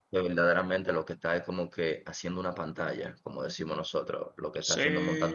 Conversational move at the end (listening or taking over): taking over